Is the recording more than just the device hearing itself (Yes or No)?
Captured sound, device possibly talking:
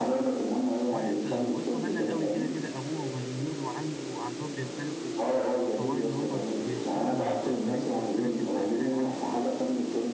Yes